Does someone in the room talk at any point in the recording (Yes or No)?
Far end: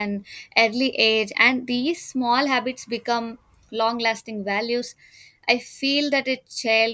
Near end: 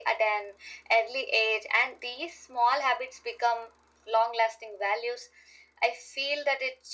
No